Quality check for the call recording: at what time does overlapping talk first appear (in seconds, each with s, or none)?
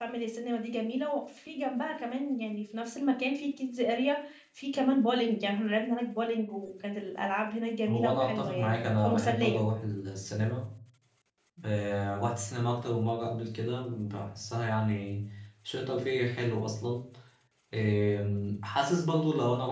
7.9 s